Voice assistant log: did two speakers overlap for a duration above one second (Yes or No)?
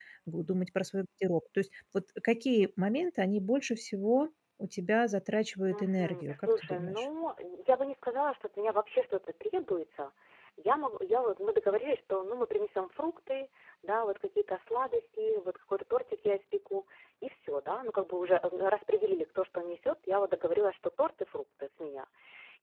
Yes